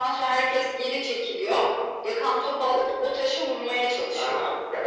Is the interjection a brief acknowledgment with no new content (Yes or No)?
No